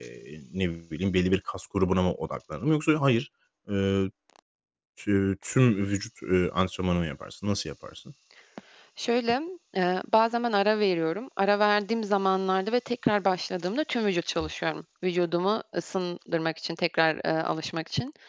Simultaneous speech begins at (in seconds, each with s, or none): none